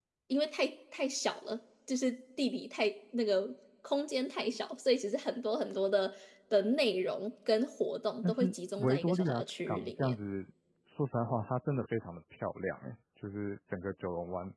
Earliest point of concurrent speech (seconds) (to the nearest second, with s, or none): 8 s